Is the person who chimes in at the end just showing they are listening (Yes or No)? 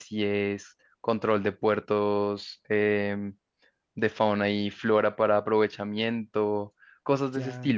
No